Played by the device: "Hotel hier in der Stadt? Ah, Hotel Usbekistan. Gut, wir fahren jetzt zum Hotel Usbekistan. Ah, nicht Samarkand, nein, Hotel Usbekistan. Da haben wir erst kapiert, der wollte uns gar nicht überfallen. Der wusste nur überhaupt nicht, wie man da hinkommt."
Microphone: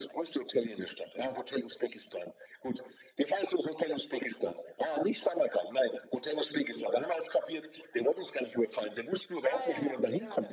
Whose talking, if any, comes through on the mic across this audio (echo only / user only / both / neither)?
both